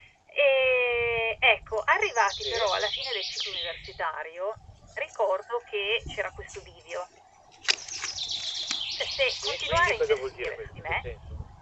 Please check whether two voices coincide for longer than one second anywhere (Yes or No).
Yes